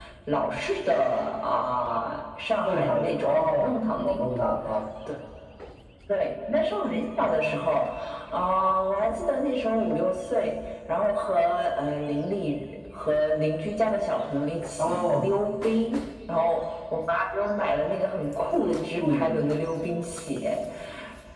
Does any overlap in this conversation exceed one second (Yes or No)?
Yes